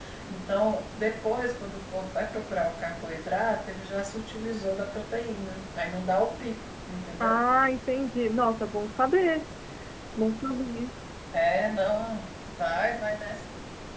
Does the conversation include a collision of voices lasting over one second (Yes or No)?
No